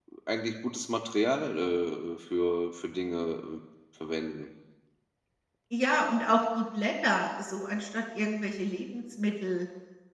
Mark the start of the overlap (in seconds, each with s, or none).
none